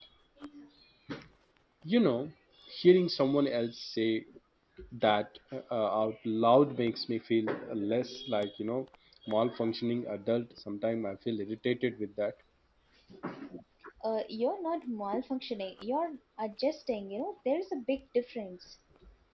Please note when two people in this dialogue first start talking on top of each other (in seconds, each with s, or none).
none